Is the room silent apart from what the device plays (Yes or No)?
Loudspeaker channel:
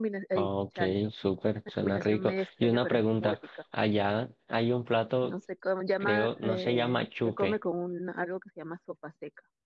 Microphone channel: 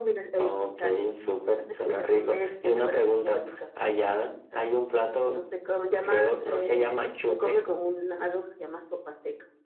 Yes